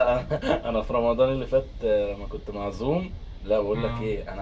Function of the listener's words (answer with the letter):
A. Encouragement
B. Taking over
A